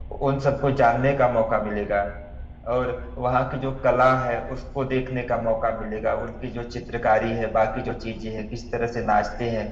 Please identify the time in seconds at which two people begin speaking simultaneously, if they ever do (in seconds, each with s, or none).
none